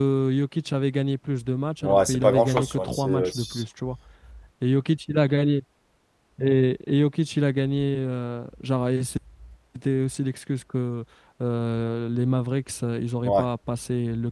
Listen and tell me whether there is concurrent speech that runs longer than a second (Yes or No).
Yes